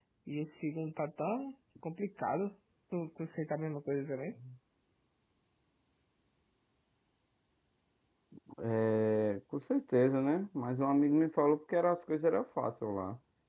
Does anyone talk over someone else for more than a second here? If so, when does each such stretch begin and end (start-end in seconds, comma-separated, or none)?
none